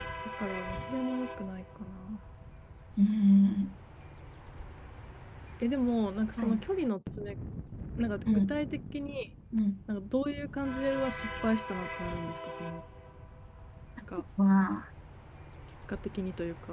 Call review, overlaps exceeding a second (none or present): none